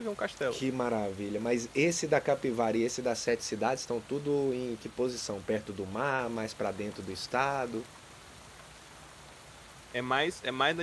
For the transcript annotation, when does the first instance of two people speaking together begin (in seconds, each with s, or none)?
none